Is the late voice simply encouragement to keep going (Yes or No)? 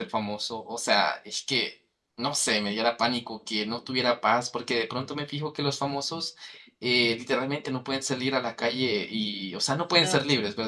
Yes